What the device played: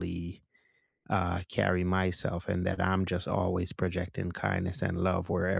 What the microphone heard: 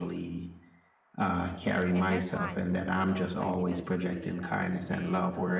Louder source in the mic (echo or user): echo